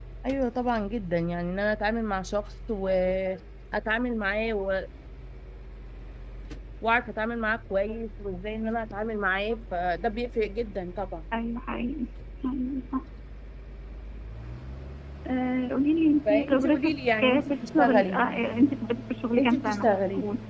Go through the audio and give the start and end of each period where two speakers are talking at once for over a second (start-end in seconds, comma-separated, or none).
16.2-18.2